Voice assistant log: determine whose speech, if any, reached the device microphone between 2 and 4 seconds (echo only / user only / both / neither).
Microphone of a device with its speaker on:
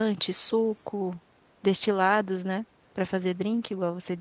user only